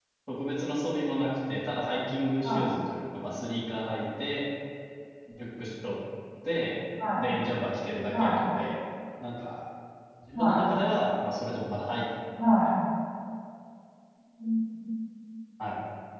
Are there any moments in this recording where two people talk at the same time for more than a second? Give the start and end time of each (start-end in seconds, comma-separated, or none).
none